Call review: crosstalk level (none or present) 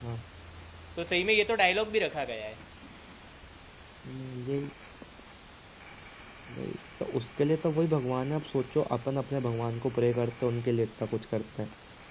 none